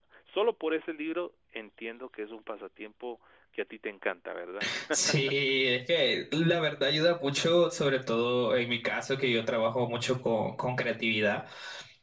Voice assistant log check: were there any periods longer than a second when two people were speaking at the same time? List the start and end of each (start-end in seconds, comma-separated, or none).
none